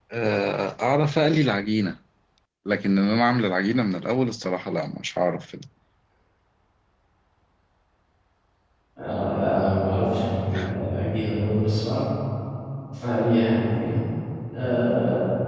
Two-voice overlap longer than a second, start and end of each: none

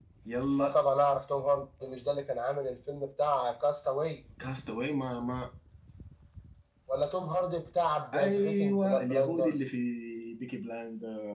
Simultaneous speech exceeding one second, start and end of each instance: 8.1-9.6

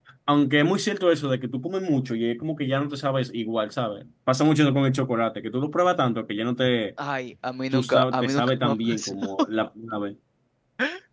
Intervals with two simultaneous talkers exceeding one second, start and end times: 7.7-9.3

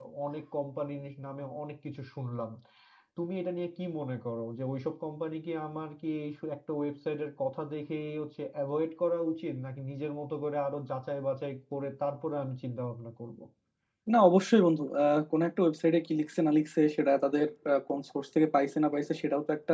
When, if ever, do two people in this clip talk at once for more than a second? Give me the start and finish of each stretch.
none

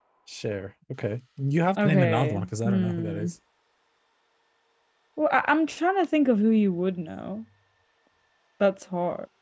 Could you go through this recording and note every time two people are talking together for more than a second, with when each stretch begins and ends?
1.8-3.3

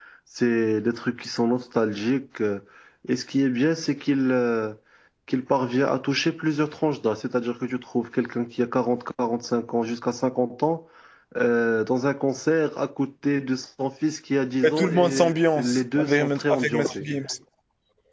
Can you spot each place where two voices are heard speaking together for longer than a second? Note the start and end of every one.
14.6-17.0

